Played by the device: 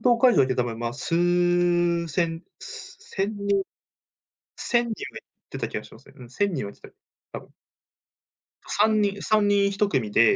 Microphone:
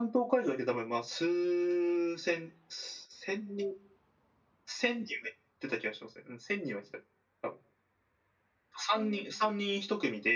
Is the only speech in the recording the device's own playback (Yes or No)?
Yes